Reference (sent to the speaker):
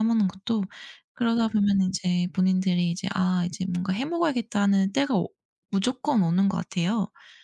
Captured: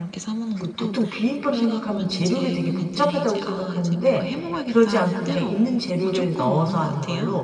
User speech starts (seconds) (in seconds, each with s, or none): 0.5 s